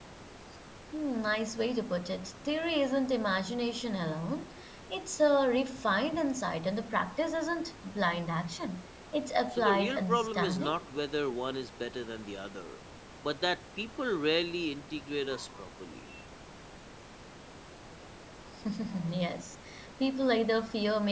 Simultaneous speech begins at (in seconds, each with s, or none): 9.5 s